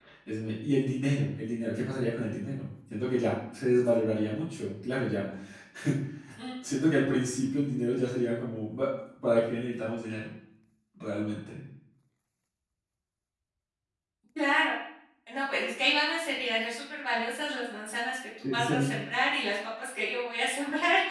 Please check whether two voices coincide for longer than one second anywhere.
No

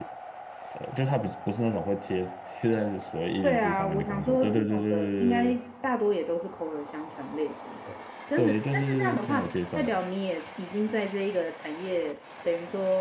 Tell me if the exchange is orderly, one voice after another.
No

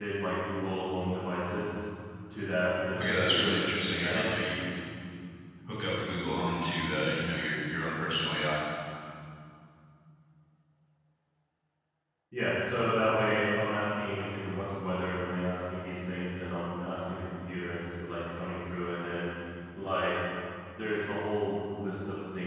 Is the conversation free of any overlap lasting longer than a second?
No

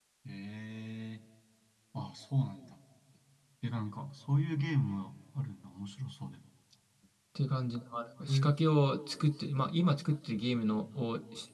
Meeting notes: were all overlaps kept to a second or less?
Yes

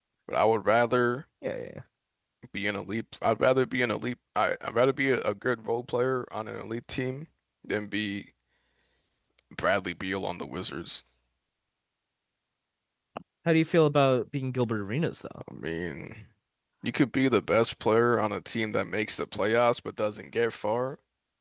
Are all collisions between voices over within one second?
Yes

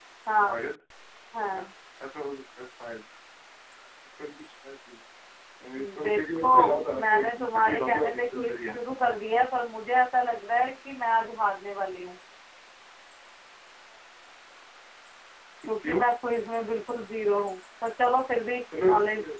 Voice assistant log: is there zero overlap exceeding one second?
No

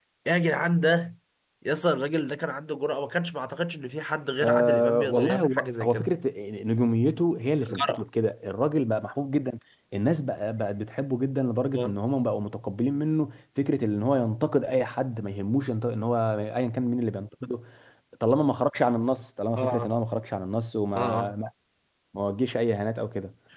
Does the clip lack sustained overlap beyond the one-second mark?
No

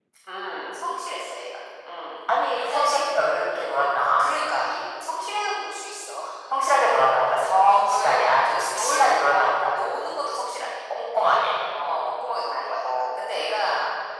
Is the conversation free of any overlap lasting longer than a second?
No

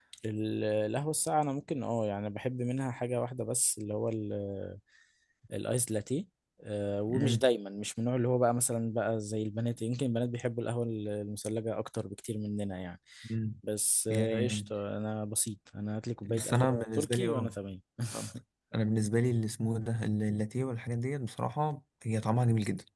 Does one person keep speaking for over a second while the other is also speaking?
Yes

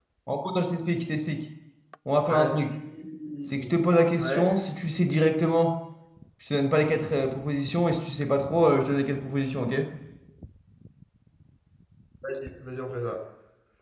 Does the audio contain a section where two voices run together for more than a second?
No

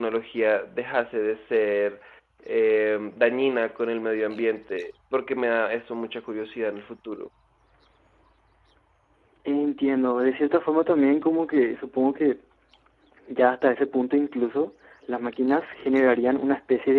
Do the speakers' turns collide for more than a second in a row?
No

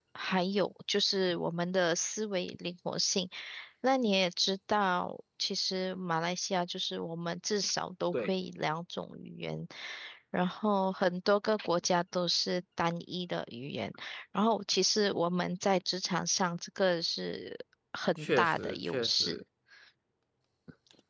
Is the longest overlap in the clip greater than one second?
Yes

